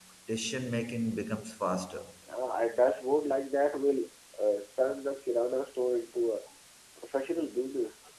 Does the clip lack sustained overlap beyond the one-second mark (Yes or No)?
Yes